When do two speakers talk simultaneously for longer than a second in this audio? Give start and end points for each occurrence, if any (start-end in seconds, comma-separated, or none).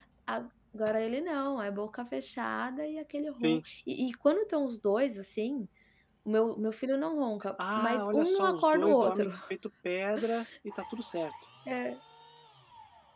7.8-9.3